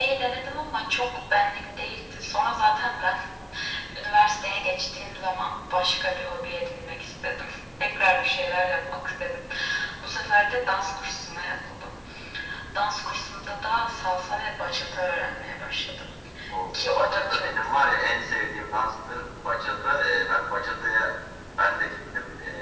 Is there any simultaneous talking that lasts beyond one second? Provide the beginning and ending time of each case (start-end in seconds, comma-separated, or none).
16.7-18.0